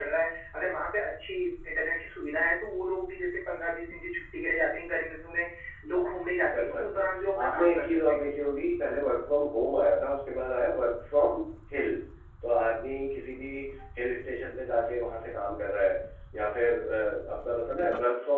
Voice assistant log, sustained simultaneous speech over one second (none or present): present